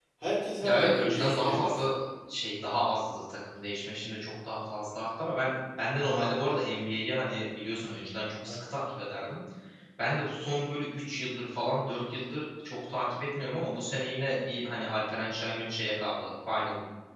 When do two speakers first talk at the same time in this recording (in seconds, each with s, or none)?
0.6 s